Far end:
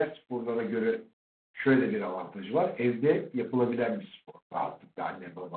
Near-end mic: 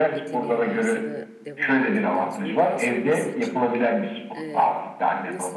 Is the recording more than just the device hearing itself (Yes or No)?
Yes